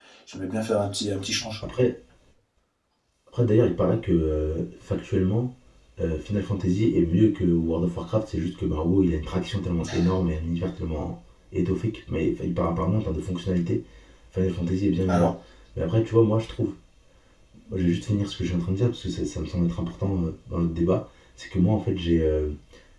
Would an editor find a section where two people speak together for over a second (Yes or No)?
No